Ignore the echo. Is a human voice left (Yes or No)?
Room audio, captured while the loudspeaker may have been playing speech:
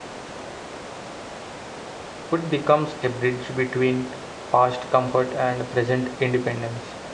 Yes